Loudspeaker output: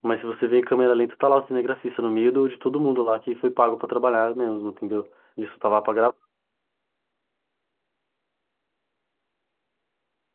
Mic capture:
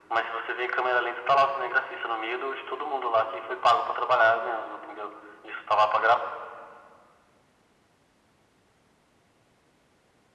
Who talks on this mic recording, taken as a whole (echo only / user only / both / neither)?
echo only